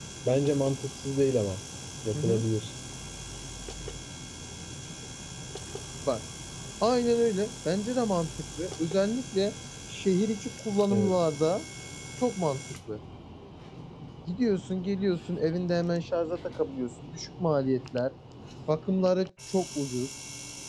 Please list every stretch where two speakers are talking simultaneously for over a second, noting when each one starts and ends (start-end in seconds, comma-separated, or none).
none